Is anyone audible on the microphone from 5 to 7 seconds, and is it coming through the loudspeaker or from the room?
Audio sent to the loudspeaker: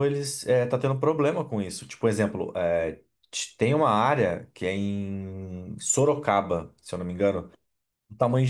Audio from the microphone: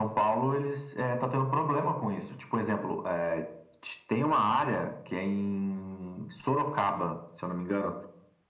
echo only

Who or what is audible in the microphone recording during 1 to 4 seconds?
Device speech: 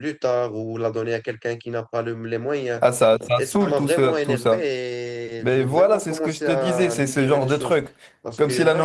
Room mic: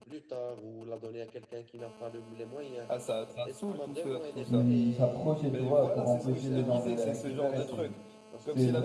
echo only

